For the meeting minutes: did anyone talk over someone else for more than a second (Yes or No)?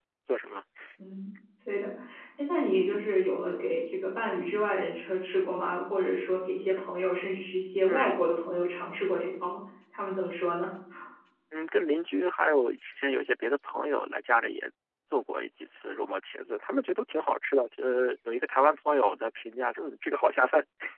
No